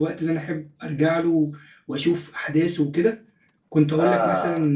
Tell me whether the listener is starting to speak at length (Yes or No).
No